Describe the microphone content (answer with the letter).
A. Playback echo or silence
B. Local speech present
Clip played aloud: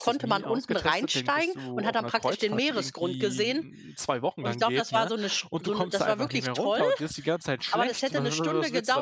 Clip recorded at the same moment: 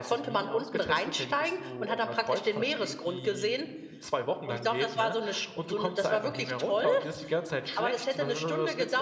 A